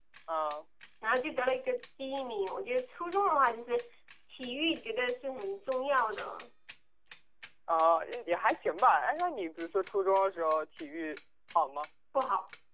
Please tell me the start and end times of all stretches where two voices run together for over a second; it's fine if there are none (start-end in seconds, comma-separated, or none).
none